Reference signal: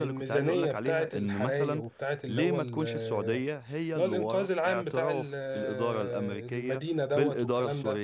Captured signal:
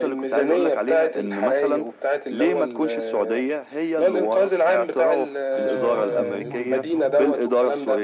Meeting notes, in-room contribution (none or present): present